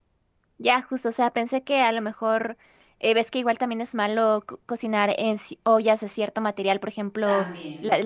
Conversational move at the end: listening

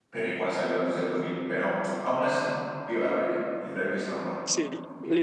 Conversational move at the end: taking over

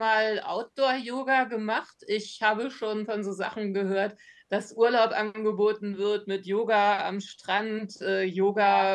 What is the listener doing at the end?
listening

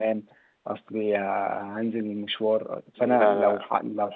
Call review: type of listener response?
listening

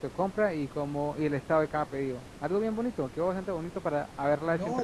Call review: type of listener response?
taking over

